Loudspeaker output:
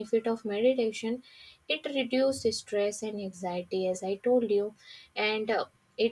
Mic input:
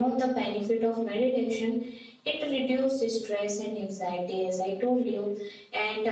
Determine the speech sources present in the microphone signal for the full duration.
echo only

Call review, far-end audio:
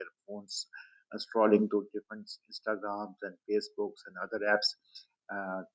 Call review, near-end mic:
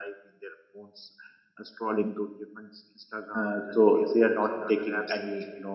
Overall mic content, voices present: both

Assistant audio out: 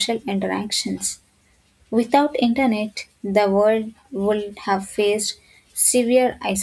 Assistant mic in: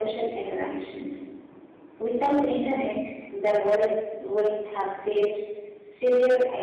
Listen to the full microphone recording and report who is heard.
echo only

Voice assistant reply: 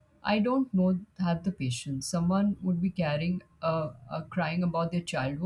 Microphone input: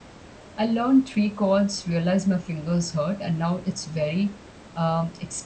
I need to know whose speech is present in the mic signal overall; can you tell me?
user only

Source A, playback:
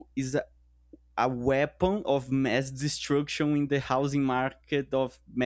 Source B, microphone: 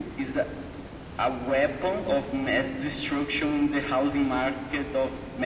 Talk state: echo only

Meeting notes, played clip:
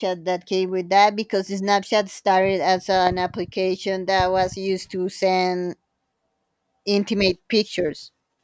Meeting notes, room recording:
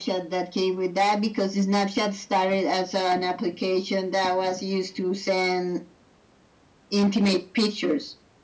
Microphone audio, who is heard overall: echo only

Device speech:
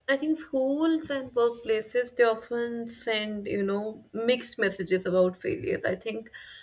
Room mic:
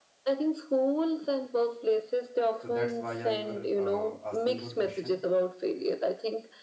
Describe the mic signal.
both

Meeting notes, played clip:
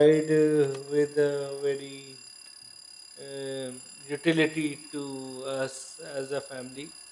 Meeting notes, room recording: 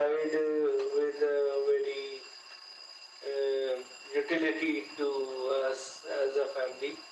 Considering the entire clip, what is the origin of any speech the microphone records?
echo only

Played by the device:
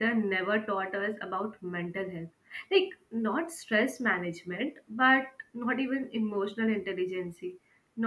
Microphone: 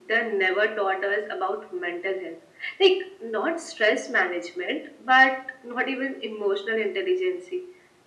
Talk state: echo only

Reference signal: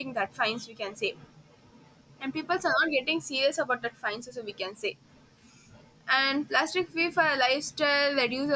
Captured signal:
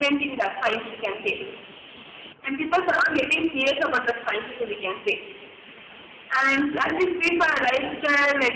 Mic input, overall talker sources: echo only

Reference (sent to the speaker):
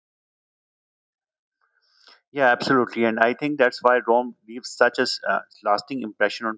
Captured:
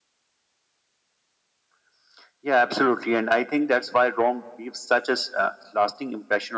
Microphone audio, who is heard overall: echo only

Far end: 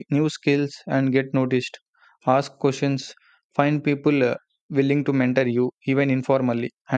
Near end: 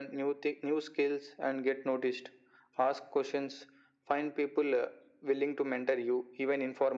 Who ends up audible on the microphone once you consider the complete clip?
echo only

